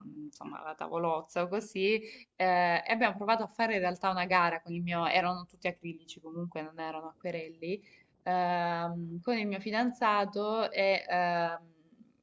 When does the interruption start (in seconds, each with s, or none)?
none